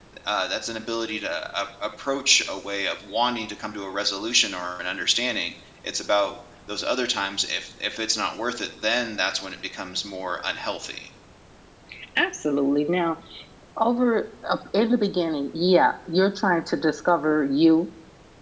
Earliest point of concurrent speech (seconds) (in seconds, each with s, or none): none